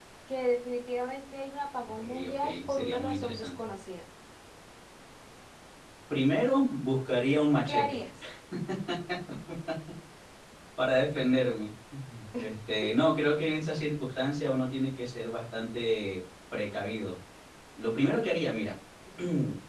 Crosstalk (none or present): present